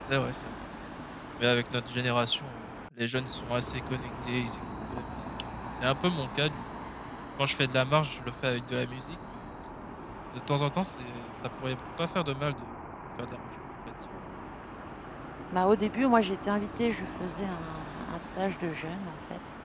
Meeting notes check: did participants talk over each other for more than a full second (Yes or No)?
No